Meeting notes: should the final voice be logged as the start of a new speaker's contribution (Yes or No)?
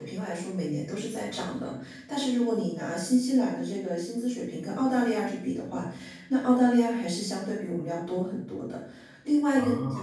No